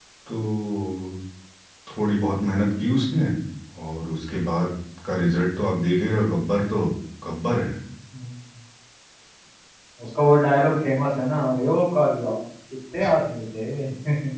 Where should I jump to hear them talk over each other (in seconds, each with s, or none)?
none